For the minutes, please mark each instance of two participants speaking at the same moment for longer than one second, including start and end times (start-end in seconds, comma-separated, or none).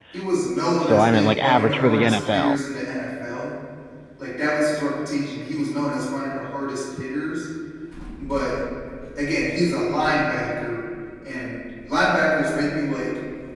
0.8-2.6